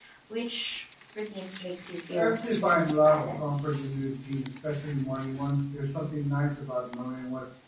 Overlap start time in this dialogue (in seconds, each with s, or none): 2.1 s